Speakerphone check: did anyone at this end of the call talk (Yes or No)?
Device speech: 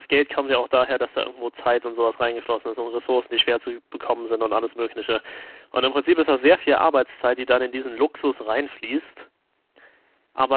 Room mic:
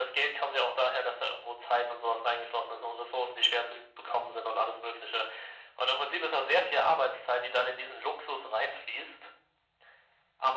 No